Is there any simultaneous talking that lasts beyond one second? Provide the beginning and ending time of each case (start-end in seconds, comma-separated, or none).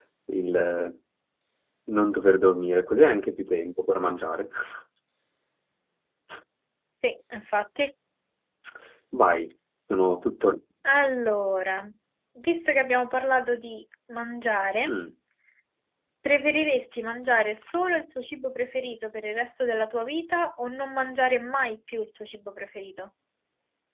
none